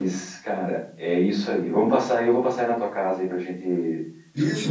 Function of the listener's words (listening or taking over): taking over